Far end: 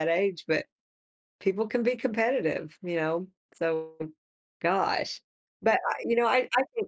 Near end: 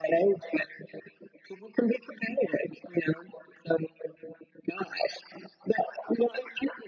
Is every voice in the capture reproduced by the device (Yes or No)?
Yes